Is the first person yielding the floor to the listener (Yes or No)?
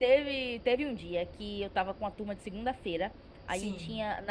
No